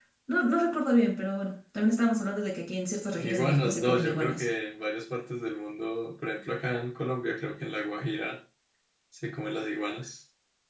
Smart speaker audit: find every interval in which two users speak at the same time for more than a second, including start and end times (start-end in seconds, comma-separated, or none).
3.1-4.5